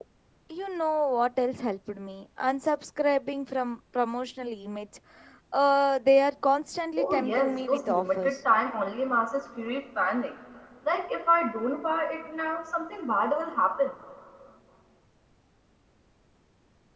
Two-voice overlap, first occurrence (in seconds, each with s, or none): 7.0 s